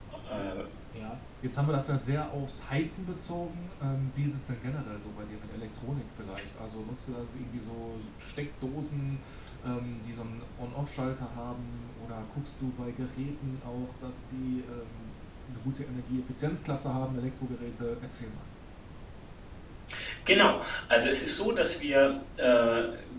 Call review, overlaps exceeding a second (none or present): none